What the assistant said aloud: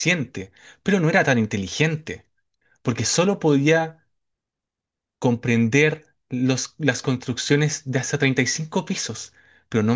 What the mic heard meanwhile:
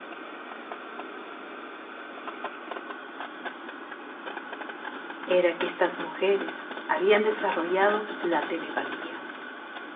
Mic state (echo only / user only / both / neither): user only